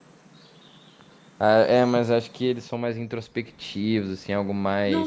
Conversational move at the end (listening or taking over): taking over